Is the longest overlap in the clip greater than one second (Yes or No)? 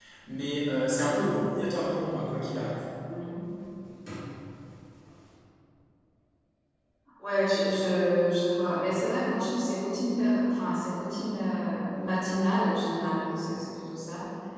No